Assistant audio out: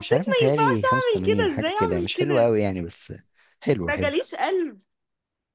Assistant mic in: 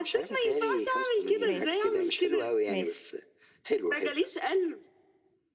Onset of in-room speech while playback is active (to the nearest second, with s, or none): 1 s